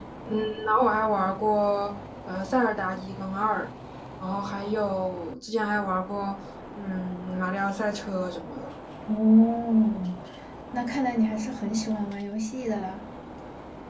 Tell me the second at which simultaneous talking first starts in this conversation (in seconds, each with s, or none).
none